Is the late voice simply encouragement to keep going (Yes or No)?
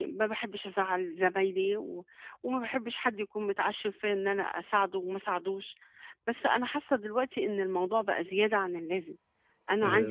Yes